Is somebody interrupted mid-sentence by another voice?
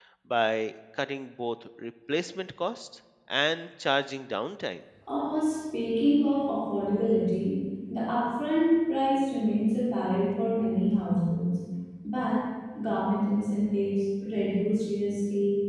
No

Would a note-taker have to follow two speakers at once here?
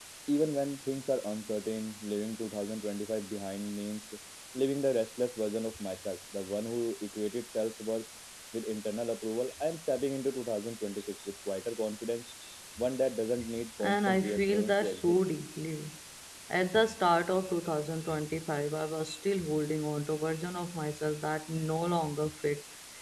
Yes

